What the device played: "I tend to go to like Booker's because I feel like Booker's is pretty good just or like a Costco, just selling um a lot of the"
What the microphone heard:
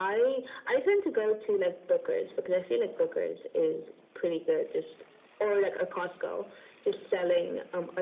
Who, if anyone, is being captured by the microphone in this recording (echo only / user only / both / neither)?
echo only